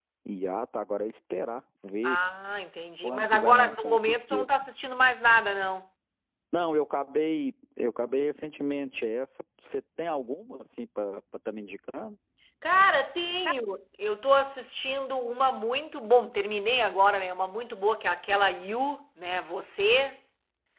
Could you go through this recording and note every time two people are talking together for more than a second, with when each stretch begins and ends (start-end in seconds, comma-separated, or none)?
3.0-4.5